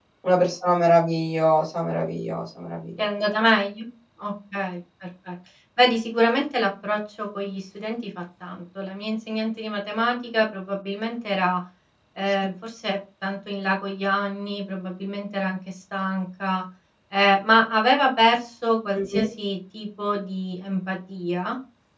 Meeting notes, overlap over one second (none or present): none